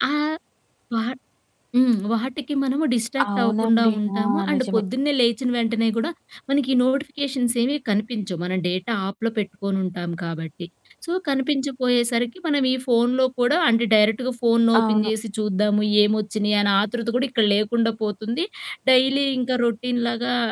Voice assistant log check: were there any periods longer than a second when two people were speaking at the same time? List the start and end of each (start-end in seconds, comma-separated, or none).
3.4-4.8